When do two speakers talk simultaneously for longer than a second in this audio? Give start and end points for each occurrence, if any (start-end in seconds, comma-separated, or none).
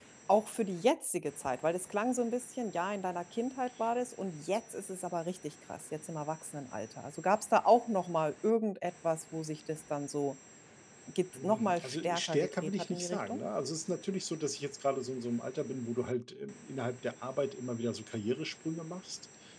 11.3-13.4